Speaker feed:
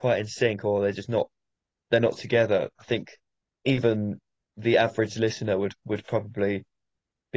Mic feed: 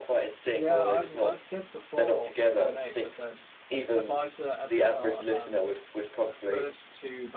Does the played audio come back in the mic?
Yes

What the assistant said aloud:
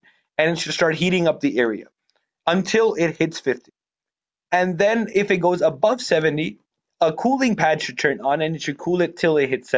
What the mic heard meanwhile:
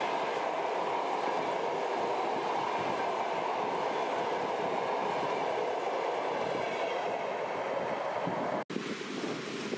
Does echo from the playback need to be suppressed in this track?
No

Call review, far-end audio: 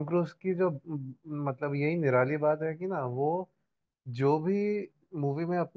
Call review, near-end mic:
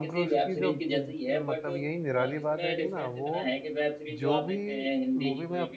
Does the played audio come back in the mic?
Yes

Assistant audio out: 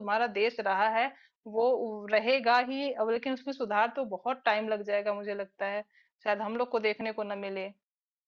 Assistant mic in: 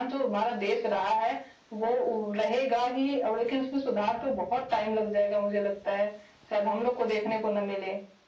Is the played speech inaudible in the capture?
No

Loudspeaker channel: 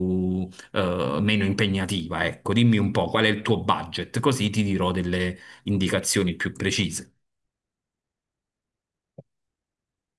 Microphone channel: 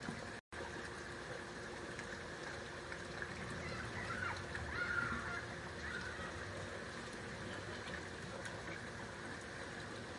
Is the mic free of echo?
Yes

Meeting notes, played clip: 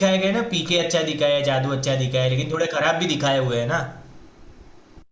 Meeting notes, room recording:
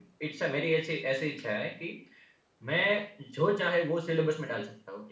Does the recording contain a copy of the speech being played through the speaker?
No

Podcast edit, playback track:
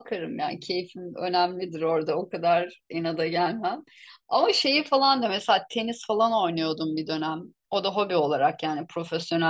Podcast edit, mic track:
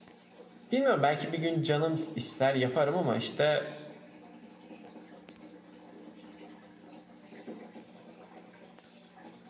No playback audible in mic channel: Yes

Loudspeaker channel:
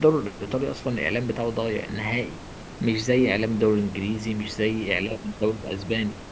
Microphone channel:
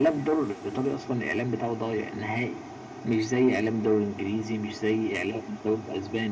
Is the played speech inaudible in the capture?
No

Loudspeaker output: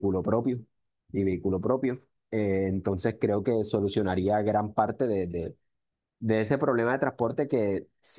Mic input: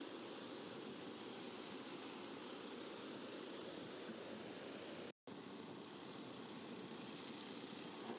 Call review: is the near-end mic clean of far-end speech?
Yes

